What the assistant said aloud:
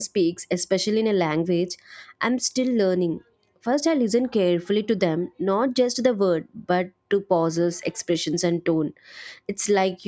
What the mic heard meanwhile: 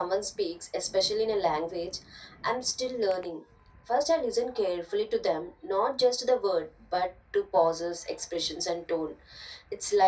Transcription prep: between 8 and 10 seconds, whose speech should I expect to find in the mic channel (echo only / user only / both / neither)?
echo only